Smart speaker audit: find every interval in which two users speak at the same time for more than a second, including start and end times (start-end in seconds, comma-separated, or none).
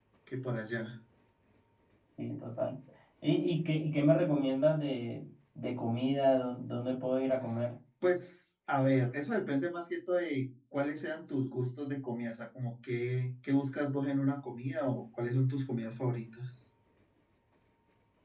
none